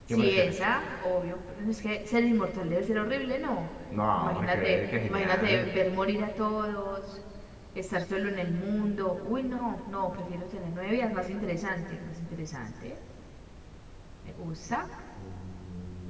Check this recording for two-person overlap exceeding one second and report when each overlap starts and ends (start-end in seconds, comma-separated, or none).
4.2-5.7